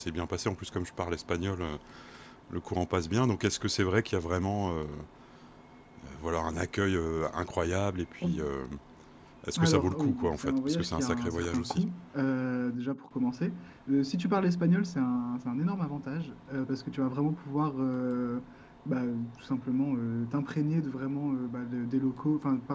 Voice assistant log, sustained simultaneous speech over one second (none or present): present